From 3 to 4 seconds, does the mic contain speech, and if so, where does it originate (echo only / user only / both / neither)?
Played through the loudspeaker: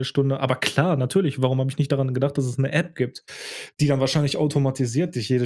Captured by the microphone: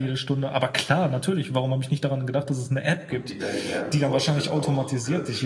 both